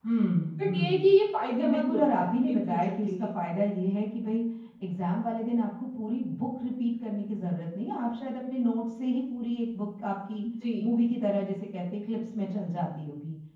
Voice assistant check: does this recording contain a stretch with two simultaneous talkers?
Yes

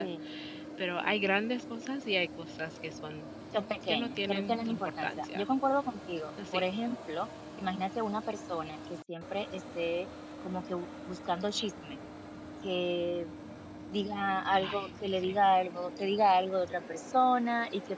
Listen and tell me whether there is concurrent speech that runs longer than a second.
Yes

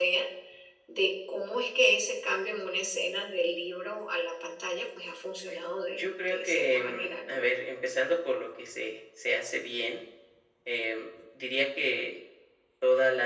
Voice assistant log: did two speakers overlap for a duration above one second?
Yes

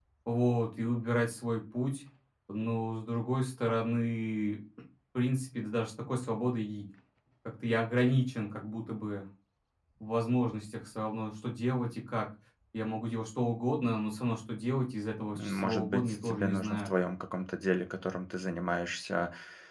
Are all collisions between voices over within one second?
No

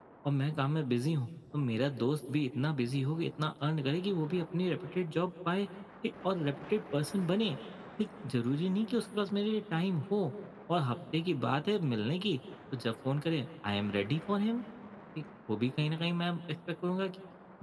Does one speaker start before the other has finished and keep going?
No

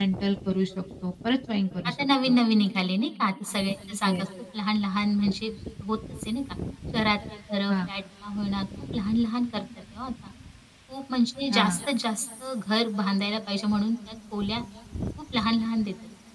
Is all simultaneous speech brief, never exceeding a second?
Yes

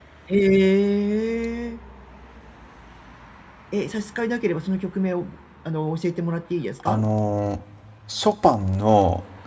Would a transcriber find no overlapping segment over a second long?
Yes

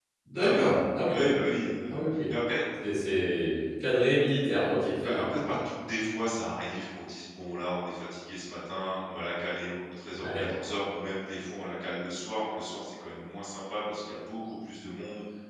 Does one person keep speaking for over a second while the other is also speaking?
No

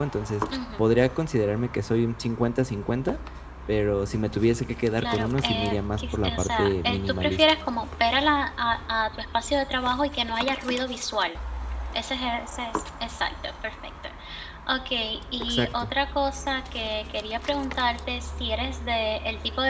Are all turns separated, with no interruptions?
No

